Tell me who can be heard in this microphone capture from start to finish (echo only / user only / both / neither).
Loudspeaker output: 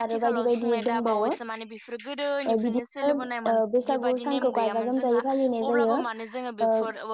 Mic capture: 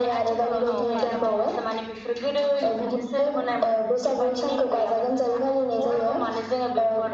both